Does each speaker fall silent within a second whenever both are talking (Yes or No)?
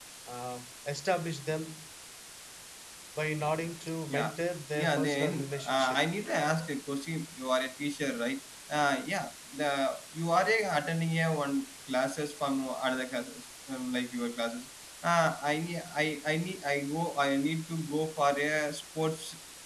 No